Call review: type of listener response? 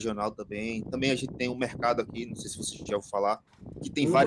listening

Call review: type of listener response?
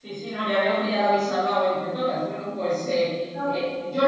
listening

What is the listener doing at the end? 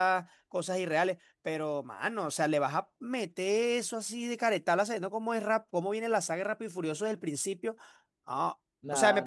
listening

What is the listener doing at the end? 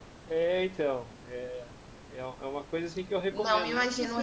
taking over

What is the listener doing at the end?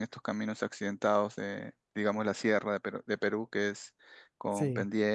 listening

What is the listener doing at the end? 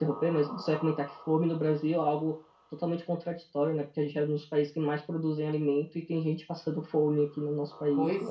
taking over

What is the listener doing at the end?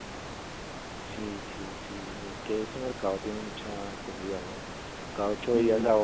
listening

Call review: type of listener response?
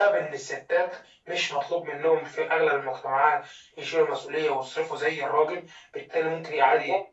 listening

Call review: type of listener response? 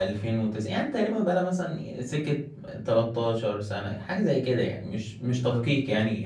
listening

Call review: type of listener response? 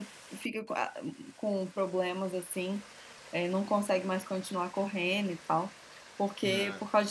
listening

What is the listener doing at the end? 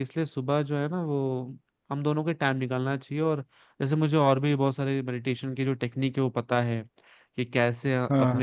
listening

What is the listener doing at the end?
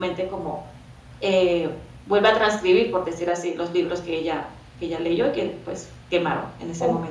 taking over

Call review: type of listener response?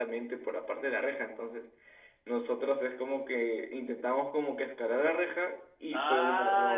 taking over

